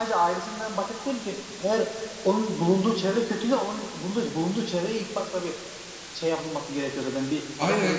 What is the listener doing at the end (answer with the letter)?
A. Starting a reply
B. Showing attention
A